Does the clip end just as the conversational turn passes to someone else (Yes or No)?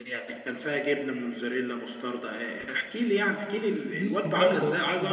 Yes